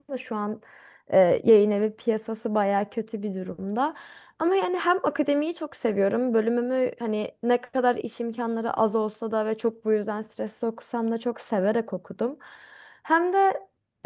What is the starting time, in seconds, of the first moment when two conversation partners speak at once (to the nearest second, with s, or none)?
none